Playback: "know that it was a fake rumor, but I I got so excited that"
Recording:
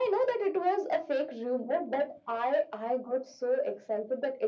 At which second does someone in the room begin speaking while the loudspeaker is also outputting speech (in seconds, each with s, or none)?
none